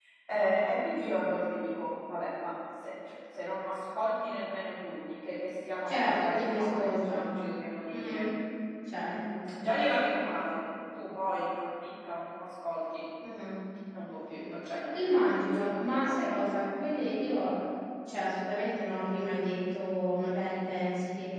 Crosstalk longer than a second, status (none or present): present